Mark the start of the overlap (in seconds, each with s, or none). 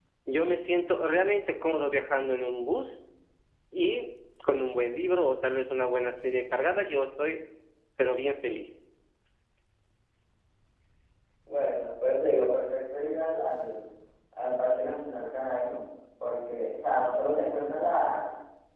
none